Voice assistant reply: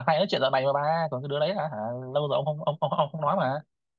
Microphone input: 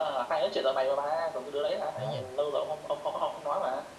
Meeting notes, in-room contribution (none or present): present